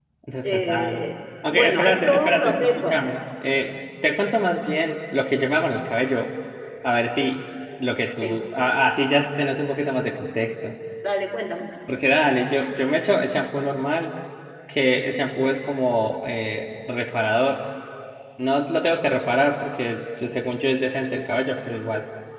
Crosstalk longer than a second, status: present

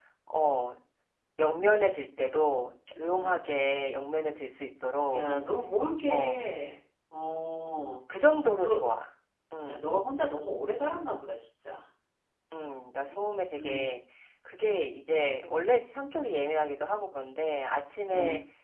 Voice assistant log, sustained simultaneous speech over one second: none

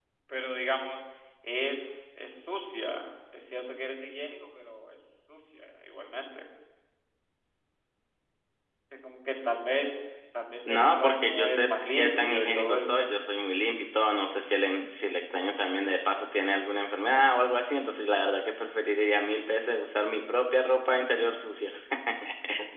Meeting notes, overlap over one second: present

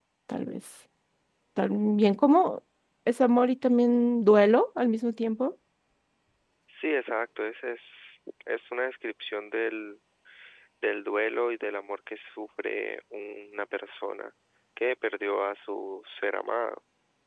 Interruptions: none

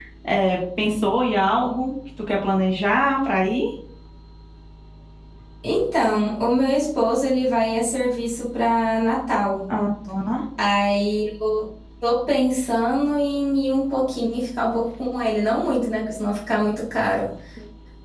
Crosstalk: none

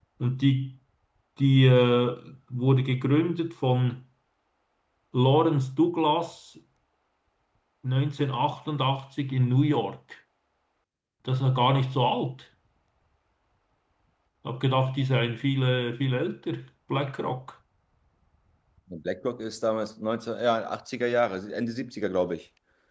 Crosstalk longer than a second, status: none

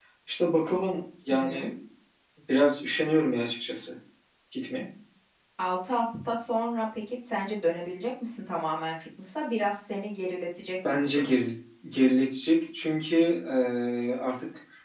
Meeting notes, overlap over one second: none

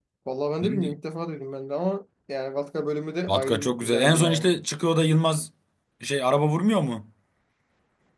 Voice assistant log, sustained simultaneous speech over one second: present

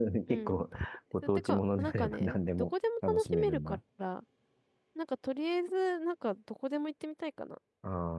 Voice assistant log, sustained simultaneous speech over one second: present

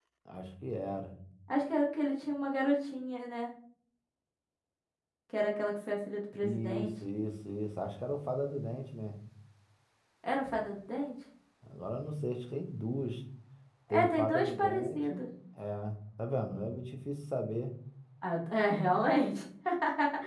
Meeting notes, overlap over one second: present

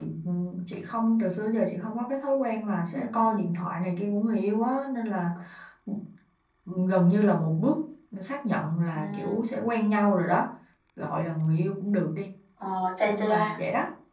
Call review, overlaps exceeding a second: none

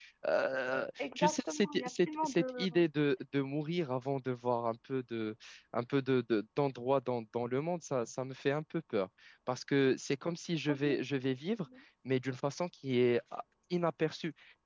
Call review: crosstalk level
present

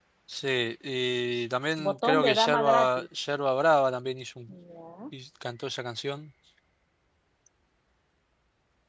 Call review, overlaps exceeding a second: present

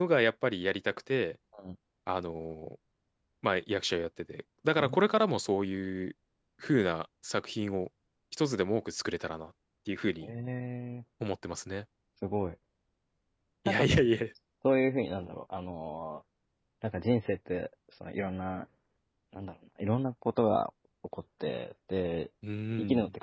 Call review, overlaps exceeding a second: none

